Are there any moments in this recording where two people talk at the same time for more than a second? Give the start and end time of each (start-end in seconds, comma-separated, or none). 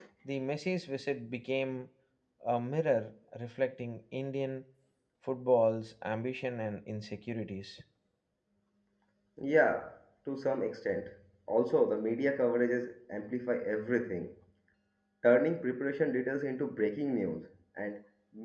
none